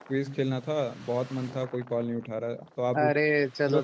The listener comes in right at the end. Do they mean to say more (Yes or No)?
Yes